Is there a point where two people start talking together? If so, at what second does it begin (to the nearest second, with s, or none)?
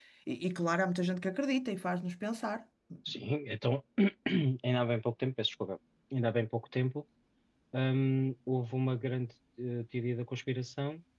none